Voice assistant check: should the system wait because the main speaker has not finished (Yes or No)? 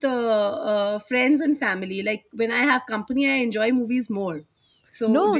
No